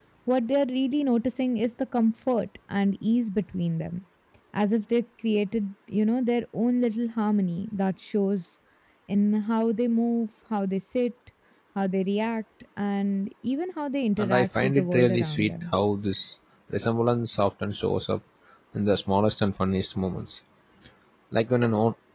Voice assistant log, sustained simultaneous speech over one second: present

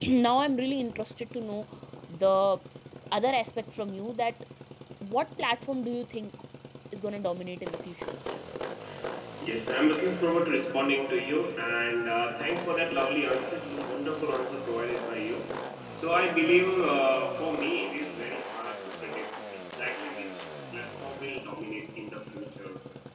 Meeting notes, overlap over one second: none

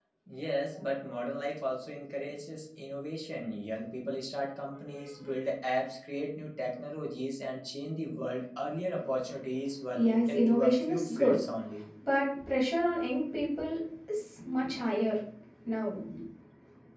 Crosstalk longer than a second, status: present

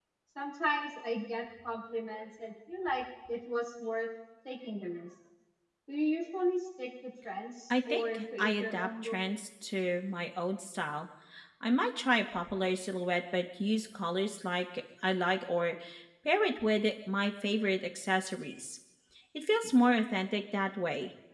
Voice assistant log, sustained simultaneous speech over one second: present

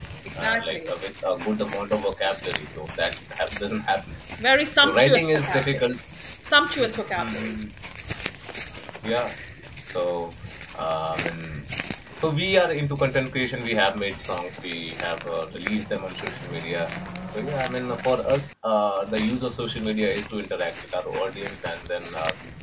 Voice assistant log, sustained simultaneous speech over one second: present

